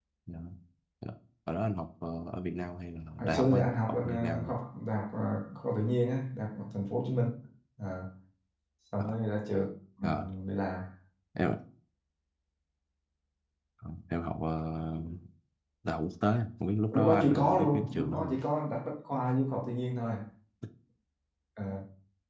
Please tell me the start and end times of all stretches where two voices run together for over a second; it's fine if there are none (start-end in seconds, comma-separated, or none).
3.2-4.5, 16.9-18.4